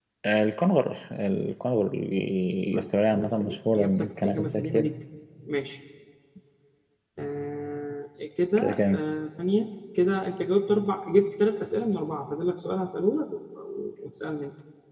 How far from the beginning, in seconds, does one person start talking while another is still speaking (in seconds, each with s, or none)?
2.7 s